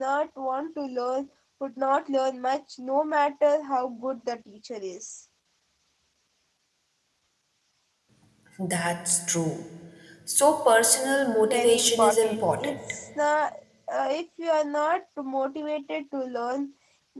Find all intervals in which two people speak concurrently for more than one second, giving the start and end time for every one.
11.5-12.8

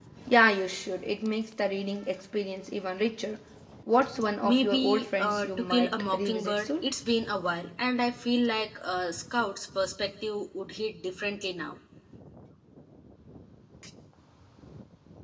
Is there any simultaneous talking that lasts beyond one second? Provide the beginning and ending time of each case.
4.4-6.8

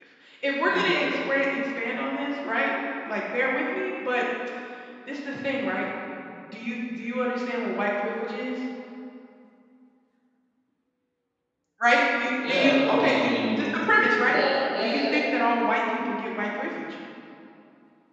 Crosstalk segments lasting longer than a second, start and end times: 12.5-13.7

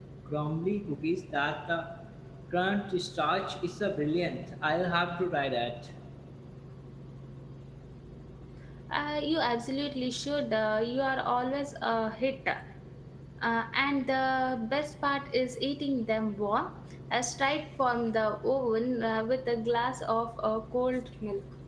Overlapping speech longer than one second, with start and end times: none

